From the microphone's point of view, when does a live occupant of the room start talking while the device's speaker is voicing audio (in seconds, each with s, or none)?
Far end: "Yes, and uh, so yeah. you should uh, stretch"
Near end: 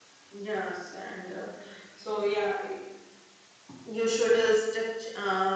none